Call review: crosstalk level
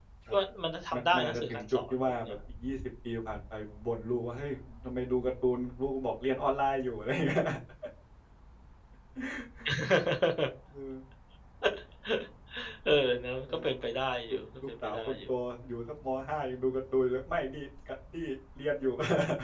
present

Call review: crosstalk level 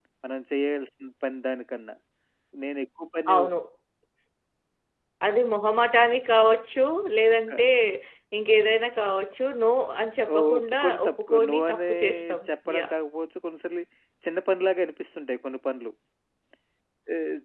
present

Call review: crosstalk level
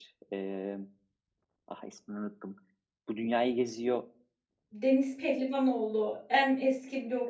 none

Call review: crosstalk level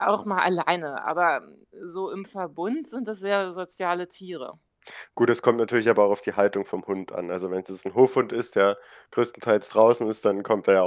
none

